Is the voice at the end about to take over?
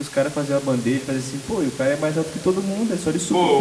Yes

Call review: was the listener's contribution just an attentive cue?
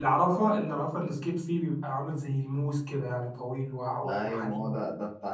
No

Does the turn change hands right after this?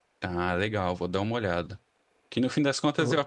No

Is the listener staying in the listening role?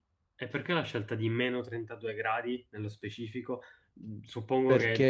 Yes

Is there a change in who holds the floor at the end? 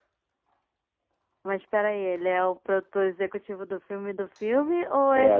Yes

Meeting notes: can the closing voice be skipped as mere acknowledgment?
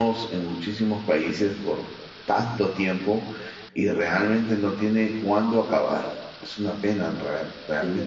No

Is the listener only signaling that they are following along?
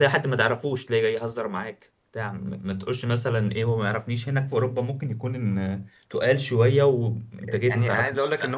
No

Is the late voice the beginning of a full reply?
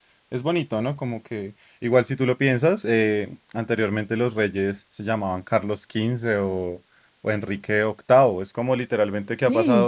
No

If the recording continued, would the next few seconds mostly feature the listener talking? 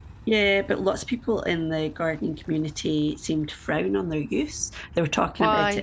No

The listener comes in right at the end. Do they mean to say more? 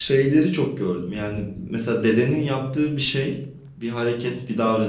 No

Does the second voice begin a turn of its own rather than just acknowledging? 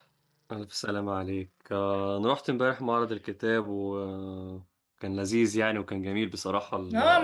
Yes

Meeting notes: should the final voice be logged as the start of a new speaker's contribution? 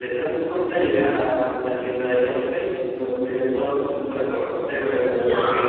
No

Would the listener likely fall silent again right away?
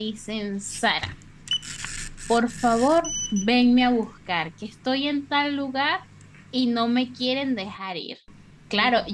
Yes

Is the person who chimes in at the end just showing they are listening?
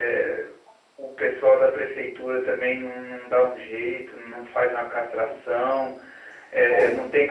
Yes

